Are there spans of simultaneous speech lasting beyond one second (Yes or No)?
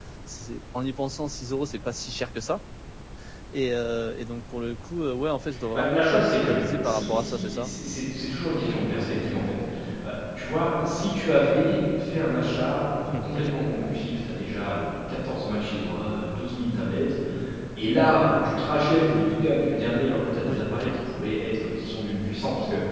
Yes